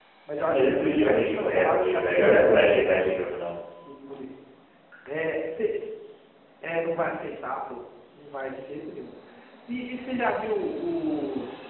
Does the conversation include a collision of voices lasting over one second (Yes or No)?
Yes